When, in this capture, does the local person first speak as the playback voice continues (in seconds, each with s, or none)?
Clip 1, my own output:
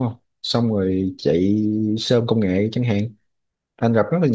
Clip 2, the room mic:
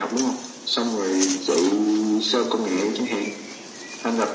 none